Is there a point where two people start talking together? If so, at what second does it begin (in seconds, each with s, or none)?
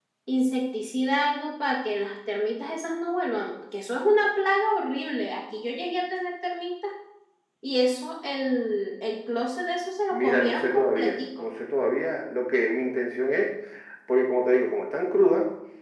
10.1 s